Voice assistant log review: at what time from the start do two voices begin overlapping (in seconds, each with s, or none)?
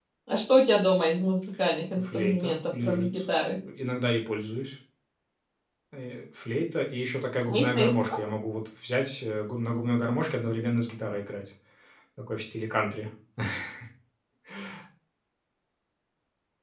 2.0 s